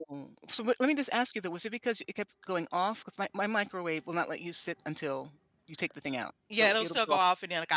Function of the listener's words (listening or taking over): taking over